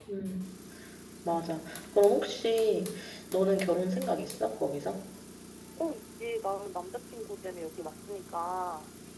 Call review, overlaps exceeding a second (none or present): none